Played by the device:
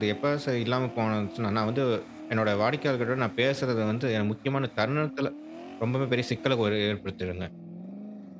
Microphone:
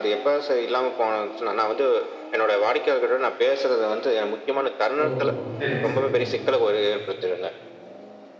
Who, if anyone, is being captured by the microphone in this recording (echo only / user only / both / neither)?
both